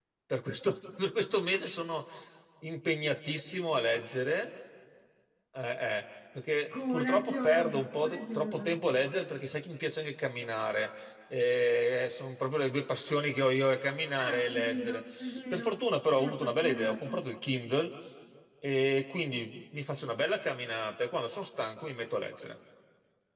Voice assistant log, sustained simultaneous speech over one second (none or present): present